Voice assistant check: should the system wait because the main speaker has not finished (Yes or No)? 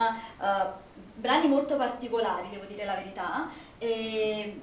Yes